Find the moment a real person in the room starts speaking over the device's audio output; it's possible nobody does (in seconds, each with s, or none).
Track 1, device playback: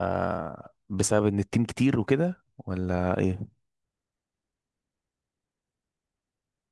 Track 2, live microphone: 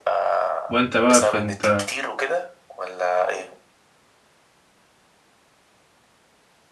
0.7 s